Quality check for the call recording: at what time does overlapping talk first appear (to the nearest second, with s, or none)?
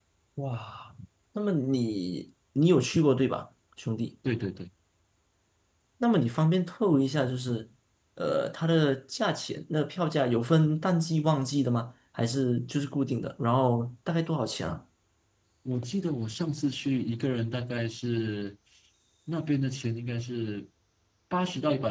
none